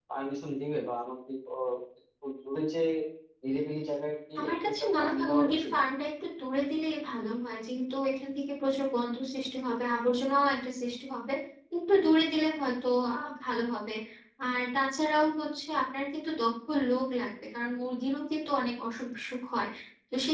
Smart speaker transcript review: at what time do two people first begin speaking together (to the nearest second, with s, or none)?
4 s